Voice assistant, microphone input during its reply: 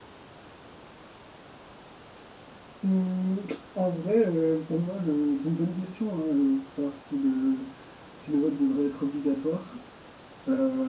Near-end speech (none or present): none